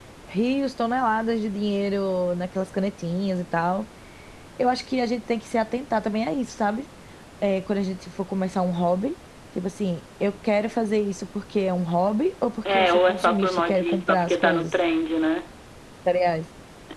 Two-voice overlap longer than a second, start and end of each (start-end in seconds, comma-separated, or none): 12.7-14.7